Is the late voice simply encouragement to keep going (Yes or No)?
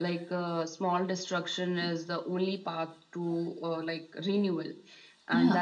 Yes